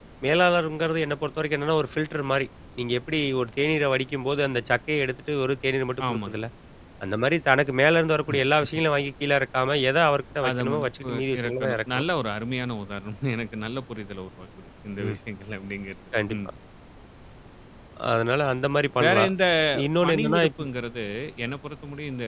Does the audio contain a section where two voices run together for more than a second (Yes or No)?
Yes